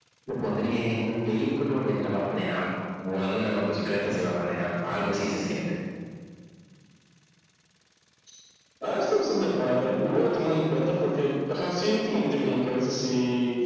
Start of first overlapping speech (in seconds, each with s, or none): none